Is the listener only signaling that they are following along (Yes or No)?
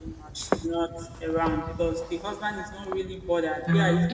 Yes